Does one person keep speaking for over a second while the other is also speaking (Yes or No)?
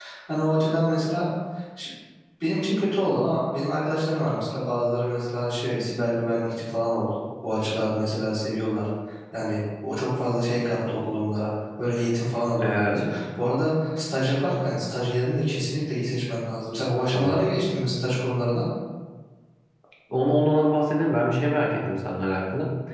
No